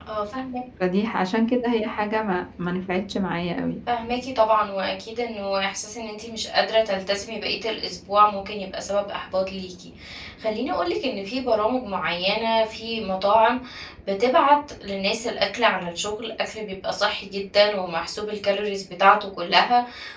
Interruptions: none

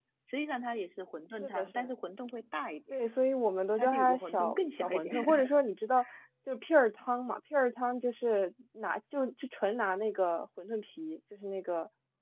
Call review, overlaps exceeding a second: present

